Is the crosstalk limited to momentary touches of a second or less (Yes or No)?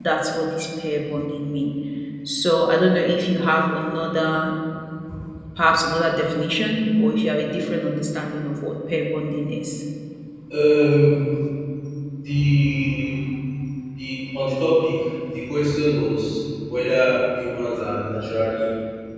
Yes